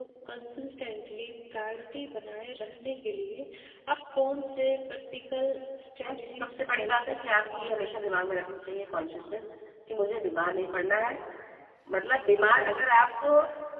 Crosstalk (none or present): present